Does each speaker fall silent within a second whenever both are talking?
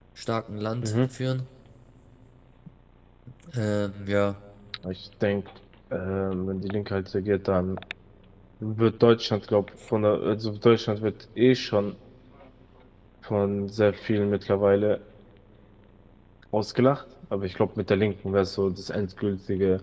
Yes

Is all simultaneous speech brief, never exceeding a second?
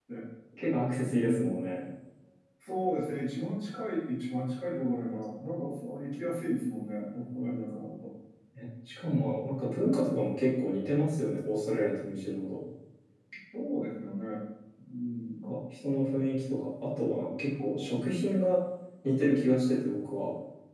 Yes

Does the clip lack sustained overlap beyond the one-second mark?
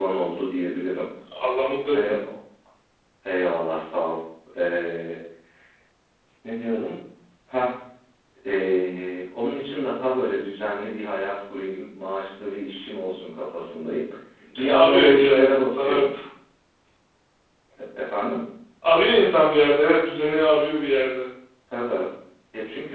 No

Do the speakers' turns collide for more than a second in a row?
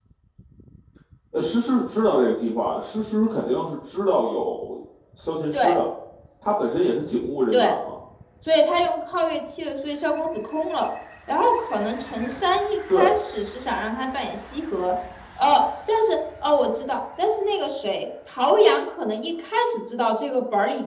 No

